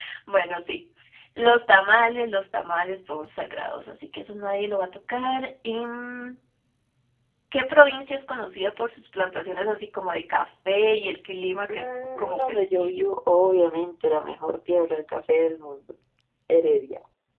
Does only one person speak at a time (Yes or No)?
No